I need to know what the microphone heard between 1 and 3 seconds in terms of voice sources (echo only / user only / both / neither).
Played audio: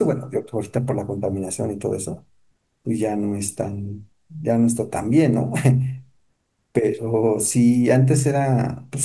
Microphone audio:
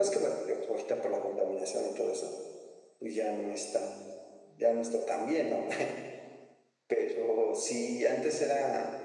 echo only